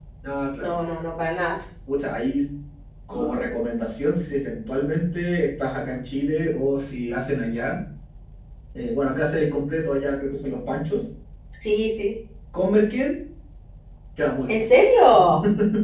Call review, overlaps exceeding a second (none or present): none